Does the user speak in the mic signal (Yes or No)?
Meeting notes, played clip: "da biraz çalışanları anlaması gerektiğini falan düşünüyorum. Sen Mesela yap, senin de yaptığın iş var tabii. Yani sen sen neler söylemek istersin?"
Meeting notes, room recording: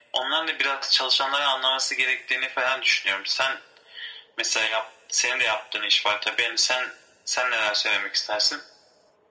No